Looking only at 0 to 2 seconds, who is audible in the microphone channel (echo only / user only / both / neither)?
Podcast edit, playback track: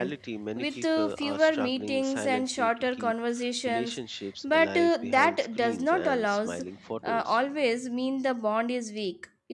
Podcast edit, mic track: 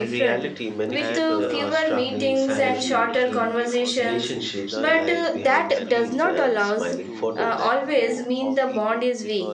both